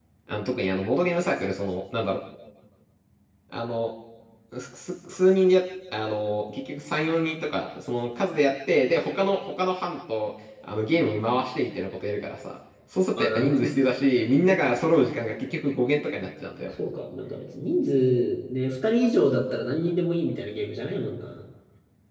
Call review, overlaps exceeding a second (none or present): none